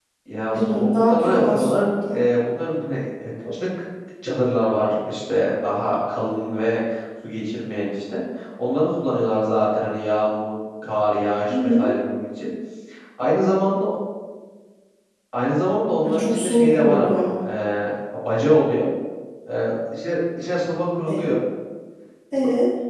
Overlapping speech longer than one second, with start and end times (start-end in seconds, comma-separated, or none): 0.5-2.2, 16.1-17.5